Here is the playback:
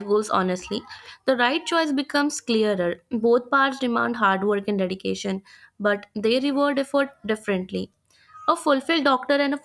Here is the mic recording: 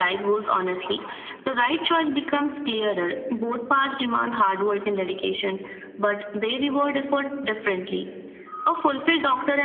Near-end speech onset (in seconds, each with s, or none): none